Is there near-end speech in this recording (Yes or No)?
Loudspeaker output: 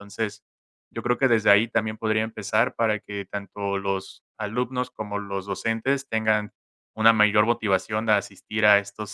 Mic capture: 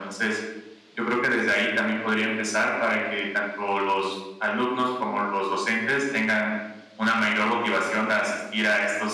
No